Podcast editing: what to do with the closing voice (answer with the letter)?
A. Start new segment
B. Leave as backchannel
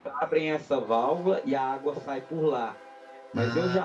B